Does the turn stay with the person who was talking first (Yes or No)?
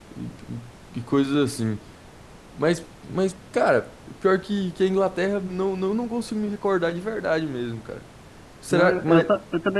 No